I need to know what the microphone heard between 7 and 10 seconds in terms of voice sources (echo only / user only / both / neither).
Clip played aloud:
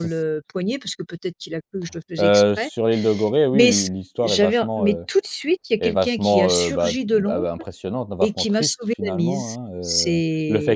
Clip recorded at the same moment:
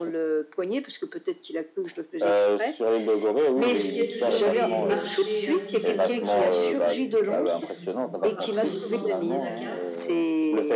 both